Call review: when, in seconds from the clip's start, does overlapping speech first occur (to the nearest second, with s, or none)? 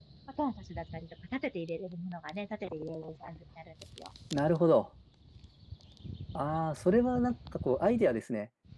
none